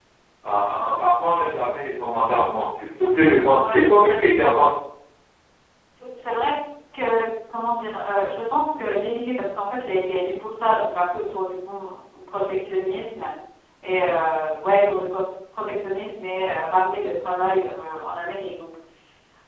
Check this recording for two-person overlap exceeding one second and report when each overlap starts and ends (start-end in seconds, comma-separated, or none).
none